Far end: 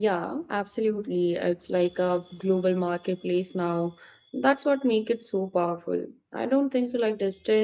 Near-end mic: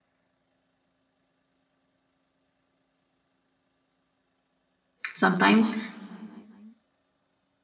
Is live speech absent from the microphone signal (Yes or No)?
No